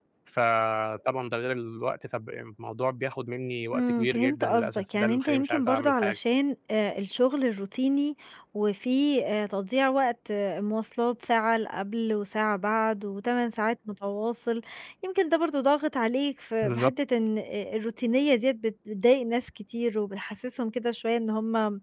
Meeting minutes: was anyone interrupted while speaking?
Yes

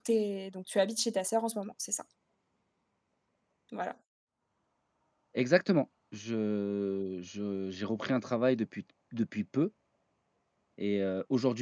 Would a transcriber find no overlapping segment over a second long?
Yes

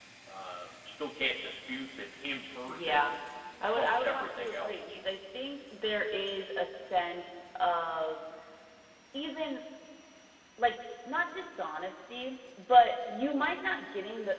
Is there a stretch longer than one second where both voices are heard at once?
Yes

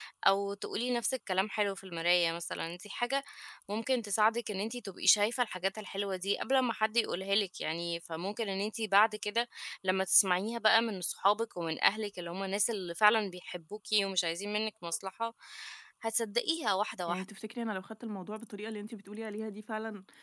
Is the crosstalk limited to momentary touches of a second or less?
Yes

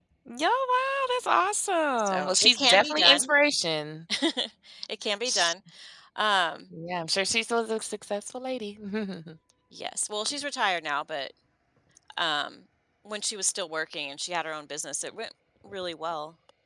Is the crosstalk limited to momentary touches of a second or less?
No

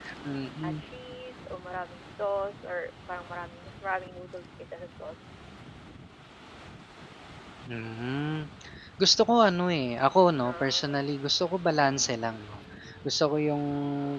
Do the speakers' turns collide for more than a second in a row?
No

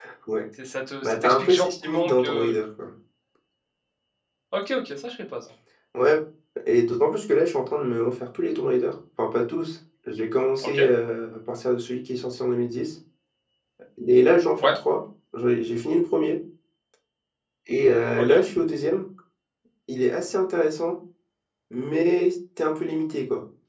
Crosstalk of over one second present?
Yes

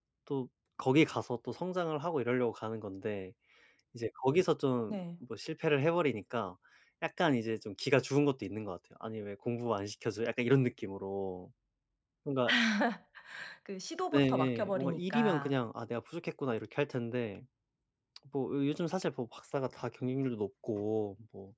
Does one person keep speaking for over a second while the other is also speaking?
Yes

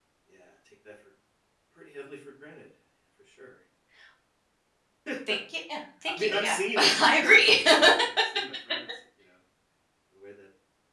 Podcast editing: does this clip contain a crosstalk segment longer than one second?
Yes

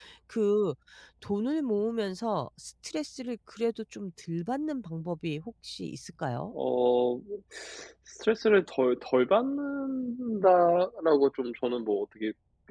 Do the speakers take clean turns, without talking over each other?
Yes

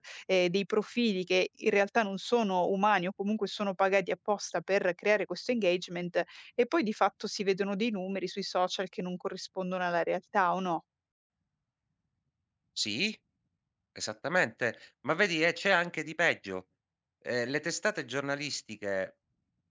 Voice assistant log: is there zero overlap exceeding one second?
Yes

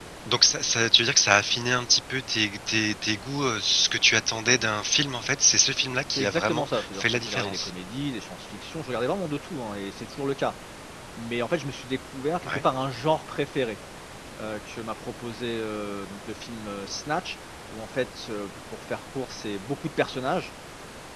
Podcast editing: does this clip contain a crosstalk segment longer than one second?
Yes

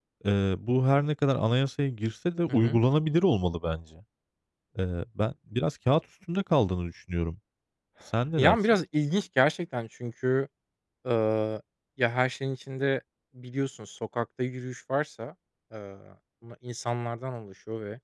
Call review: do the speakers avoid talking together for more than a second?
Yes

